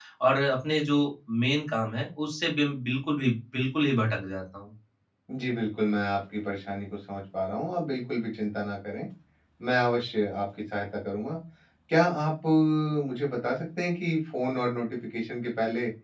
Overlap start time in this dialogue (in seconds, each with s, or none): none